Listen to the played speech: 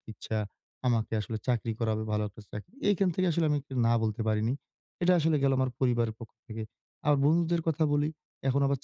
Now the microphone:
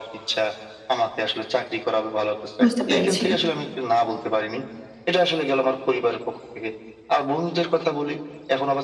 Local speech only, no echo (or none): বুঝতে পেরেছি।